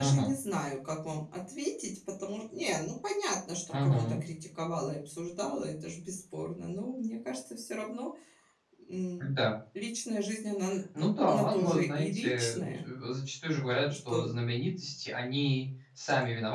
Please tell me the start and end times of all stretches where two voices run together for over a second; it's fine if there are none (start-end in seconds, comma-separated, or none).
11.3-12.8